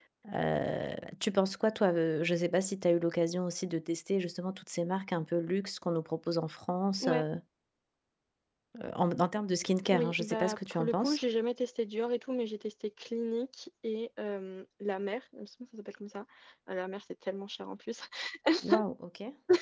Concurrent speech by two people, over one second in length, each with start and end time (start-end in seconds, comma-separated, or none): 9.9-11.2